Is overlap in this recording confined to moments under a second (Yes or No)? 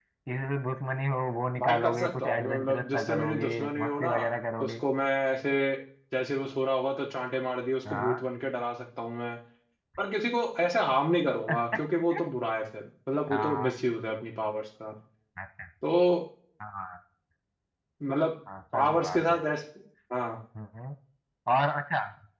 No